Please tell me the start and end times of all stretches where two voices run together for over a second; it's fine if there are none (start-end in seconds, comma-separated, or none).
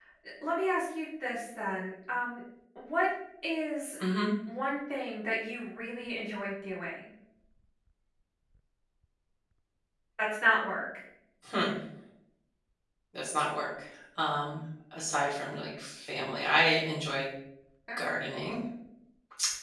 none